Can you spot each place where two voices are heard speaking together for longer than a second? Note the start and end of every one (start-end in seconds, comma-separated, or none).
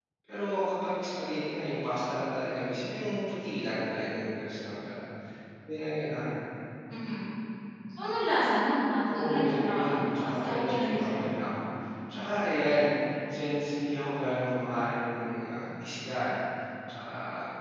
9.1-11.3